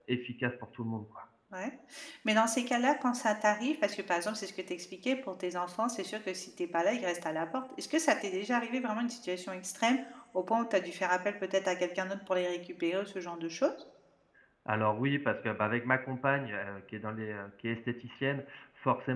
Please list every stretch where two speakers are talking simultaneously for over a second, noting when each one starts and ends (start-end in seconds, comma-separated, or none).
none